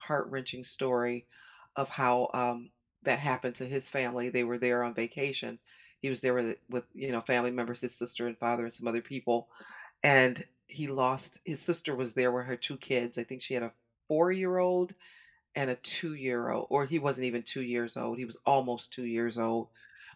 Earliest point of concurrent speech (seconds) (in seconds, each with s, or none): none